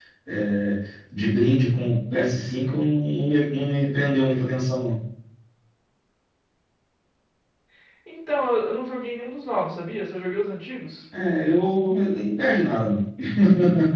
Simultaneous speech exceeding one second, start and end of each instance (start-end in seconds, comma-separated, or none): none